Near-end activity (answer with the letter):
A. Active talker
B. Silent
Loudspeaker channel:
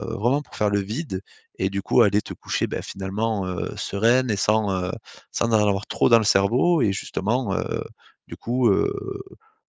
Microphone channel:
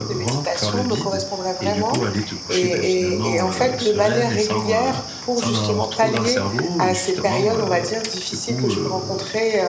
A